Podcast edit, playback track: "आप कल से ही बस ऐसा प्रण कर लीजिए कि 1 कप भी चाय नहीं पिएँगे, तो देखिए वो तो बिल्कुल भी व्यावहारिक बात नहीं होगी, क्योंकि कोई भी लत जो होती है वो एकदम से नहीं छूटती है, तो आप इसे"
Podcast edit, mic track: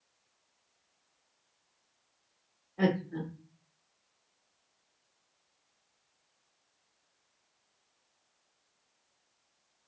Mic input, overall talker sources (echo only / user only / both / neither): user only